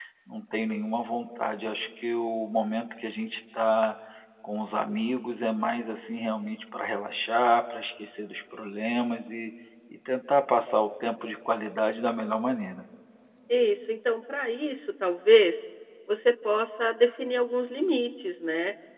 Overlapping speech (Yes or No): No